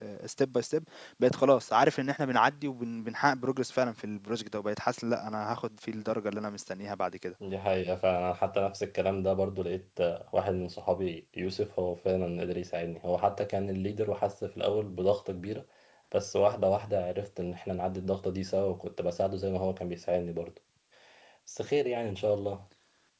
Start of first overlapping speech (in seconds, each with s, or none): none